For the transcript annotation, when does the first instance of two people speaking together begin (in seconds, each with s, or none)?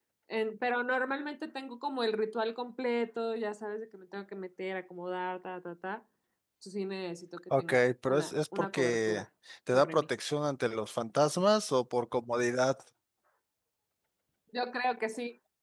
7.6 s